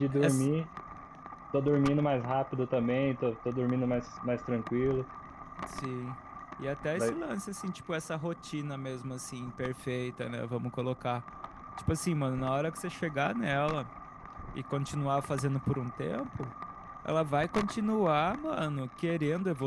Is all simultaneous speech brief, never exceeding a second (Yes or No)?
Yes